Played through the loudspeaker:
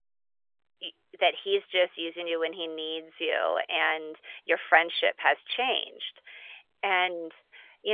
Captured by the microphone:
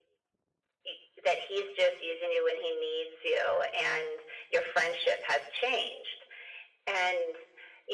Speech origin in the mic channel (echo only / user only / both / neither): echo only